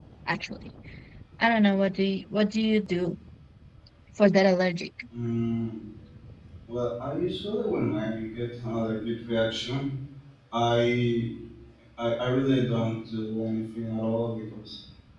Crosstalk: none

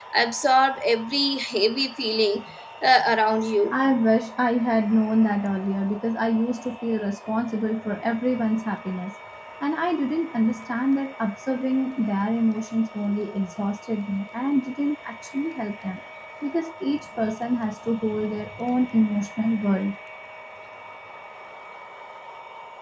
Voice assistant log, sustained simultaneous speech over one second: none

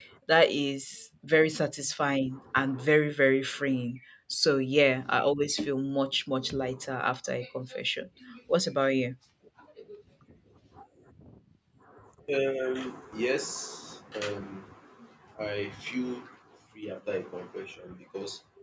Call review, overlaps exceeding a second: none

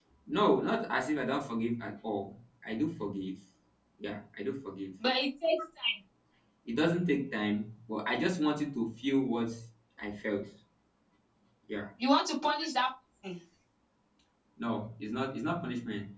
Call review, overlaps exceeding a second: none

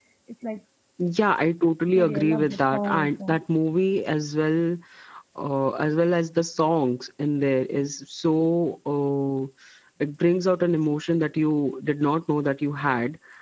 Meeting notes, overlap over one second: present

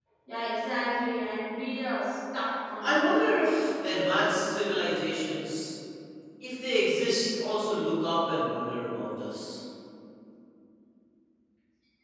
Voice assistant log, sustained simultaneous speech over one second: none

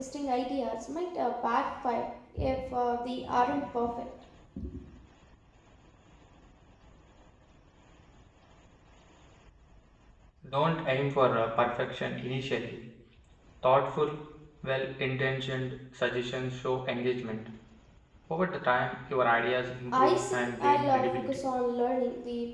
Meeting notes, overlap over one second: present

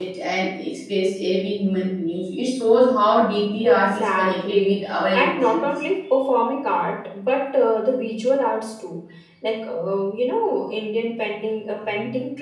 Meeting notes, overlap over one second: present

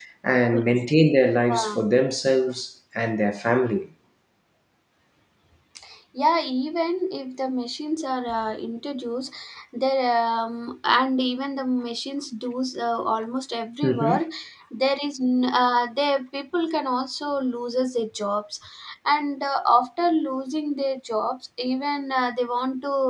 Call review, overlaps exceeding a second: none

